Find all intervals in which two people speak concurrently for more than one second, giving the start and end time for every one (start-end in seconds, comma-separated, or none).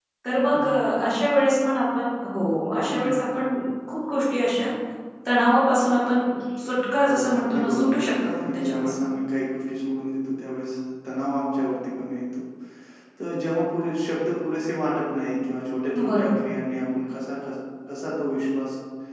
7.1-9.0